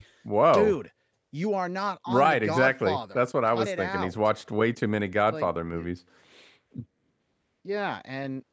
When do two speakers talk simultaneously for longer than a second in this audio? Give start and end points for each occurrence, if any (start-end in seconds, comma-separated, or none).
2.1-4.1